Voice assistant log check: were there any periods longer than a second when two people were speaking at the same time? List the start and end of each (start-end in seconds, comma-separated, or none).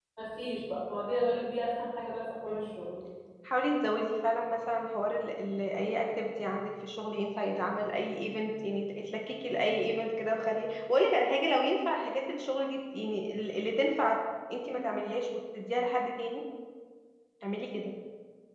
none